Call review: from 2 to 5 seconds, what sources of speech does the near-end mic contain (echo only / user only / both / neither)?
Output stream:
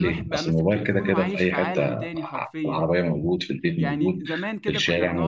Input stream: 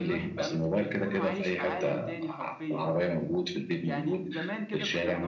echo only